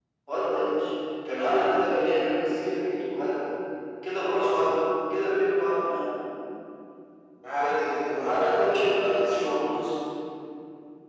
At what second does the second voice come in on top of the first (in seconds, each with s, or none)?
8.2 s